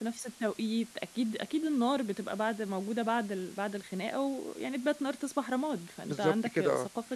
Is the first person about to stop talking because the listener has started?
Yes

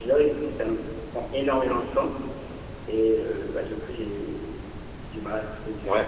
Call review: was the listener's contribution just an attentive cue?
No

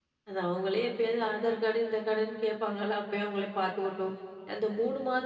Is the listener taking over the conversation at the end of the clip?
No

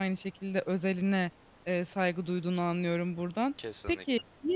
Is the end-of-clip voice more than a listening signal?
No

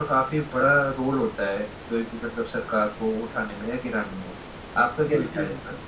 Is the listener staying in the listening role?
No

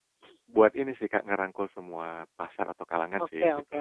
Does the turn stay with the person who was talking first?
No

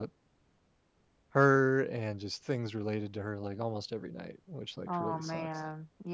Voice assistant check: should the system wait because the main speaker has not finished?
No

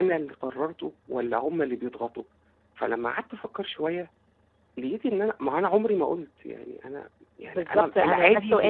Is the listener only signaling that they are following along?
No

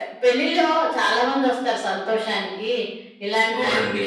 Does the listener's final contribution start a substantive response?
No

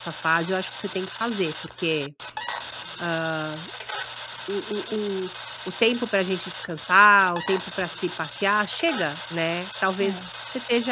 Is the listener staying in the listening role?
Yes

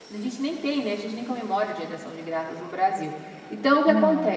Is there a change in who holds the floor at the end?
No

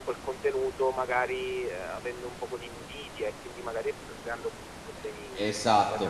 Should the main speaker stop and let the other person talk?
Yes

